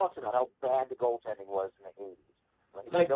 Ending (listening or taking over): taking over